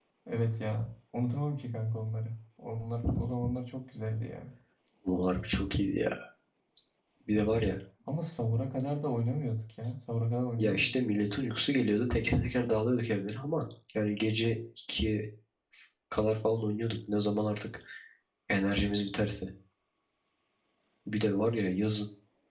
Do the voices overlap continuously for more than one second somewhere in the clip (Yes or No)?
No